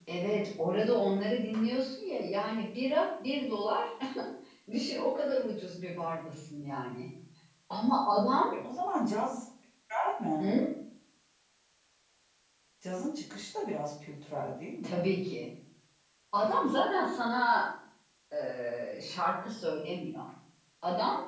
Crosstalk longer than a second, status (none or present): none